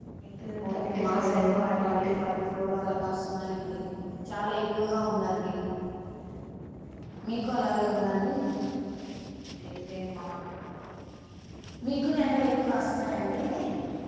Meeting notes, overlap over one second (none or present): present